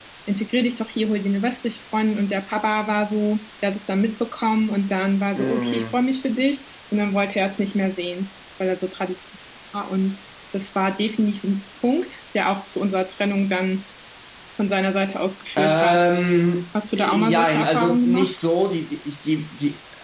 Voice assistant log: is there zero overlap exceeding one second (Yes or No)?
No